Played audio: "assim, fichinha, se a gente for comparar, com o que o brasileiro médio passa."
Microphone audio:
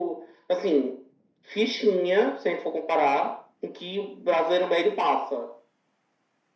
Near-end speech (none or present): none